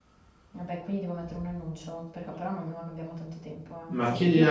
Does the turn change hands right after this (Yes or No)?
Yes